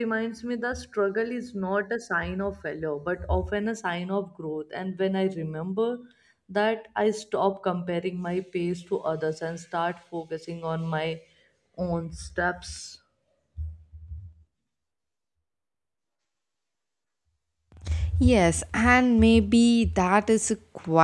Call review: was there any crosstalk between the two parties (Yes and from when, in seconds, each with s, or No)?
No